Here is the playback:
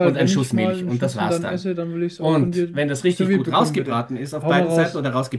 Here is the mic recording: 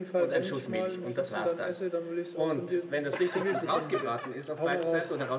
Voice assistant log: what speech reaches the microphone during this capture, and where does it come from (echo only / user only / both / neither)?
echo only